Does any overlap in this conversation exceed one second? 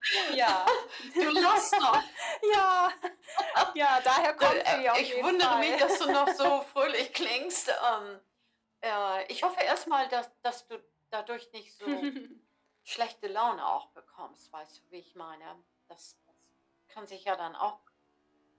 Yes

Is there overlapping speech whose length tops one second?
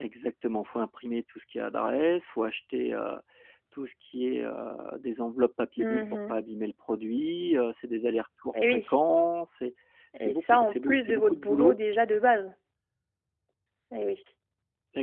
Yes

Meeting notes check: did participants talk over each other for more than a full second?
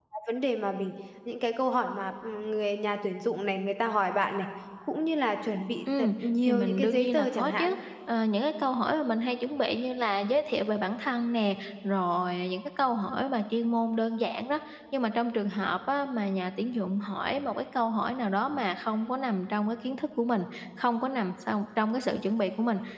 Yes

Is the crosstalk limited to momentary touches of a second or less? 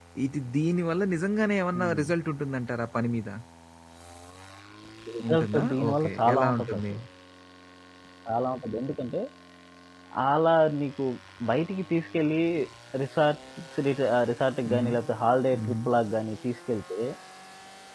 No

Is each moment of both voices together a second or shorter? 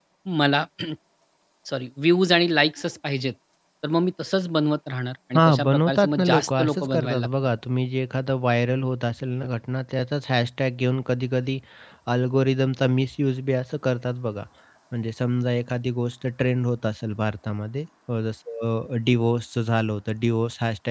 No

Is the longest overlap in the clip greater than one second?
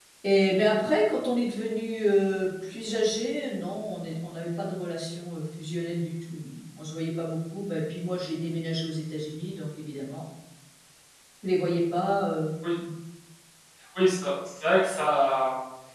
No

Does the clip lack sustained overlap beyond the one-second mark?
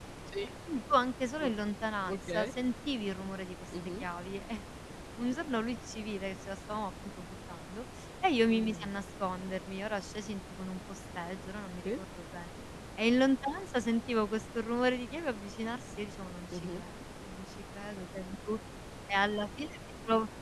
Yes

